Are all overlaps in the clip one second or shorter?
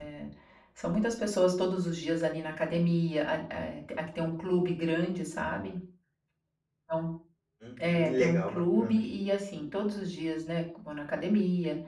No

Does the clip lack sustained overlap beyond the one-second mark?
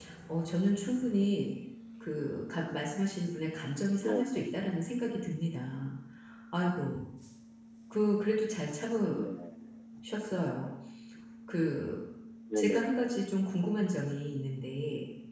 Yes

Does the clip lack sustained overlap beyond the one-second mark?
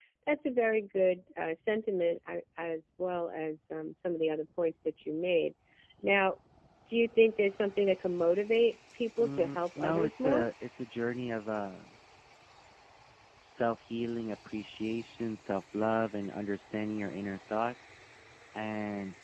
No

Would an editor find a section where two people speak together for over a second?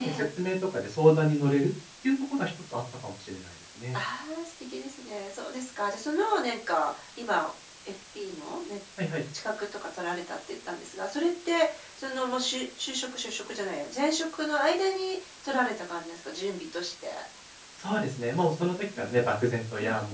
No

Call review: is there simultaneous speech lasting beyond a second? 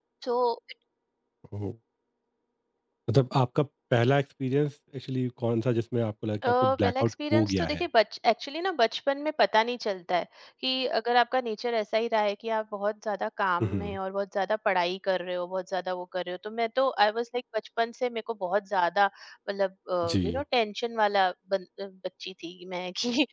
Yes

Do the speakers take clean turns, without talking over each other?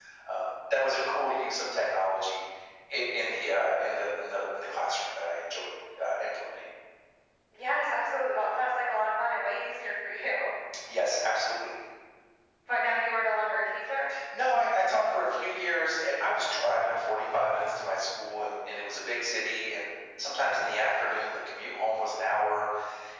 Yes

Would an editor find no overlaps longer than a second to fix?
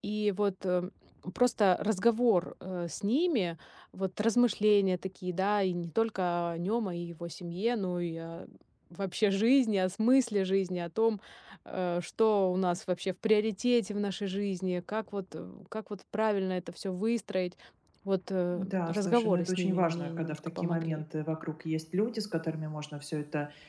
No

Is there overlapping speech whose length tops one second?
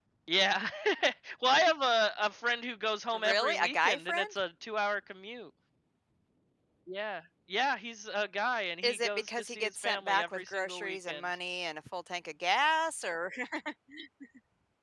Yes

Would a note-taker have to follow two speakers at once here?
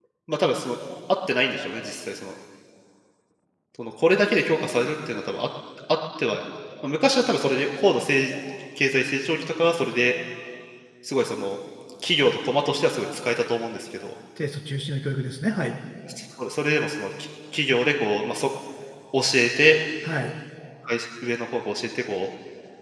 No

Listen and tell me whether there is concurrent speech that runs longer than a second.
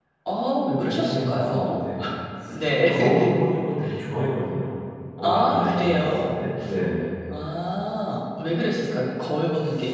Yes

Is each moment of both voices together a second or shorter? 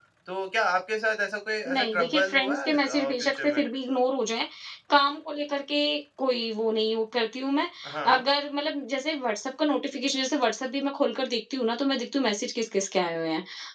No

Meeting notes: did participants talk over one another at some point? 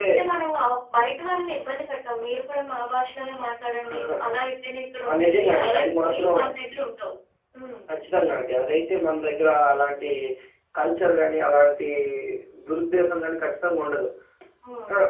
Yes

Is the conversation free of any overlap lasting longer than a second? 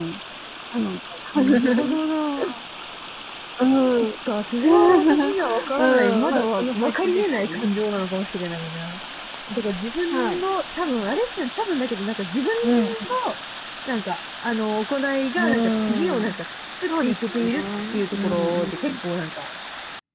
No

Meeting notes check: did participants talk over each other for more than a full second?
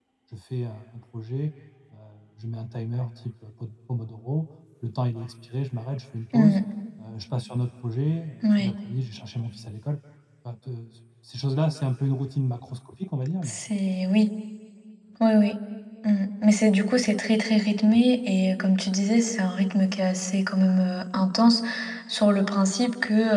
No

